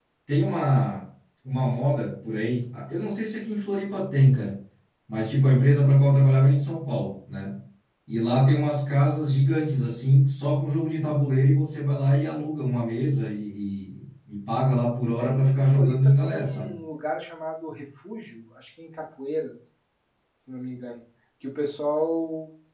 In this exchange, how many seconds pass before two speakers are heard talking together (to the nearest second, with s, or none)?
15 s